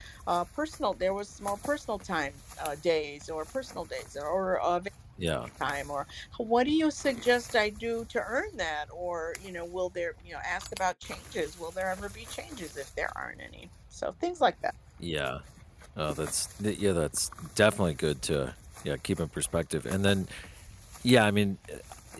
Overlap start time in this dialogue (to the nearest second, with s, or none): none